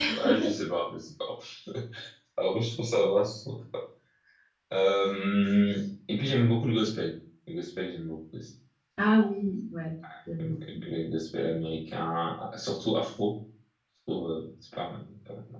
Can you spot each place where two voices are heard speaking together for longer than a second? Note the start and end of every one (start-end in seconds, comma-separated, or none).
none